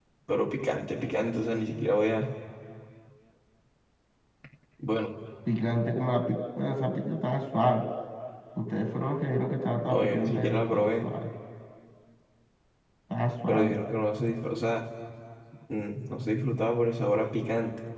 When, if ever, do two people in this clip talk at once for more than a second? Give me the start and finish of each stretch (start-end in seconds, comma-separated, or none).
9.9-11.1